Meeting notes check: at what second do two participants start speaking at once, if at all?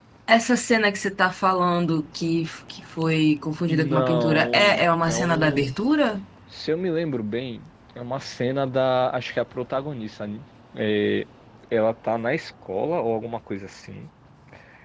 3.7 s

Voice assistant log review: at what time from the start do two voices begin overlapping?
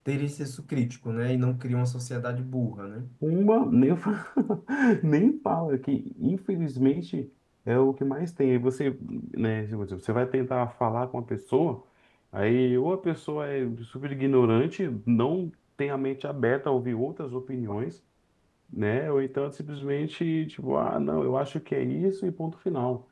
none

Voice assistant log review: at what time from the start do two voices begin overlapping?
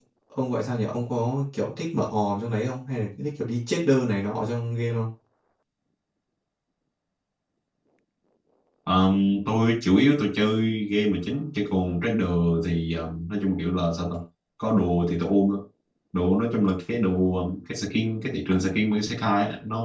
none

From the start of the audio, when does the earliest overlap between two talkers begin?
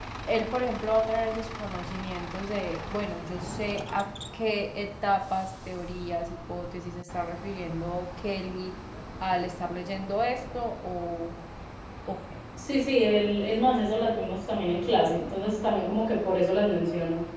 none

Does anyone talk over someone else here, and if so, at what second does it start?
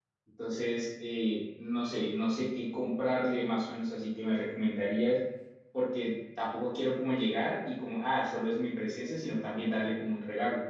none

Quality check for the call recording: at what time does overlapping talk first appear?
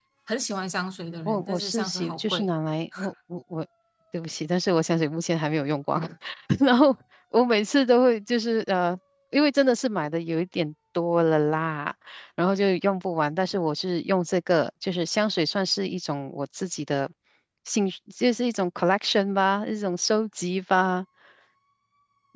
1.3 s

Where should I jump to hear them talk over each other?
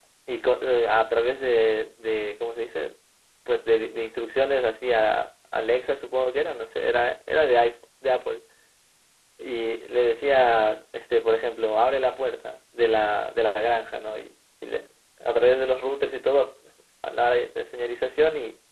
none

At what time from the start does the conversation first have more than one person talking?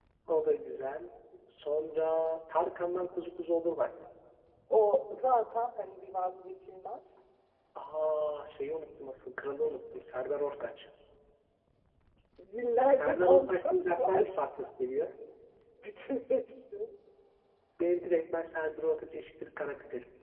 13.0 s

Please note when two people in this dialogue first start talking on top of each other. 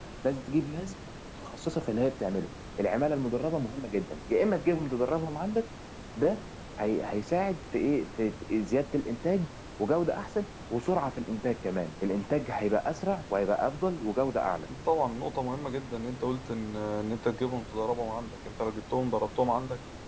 none

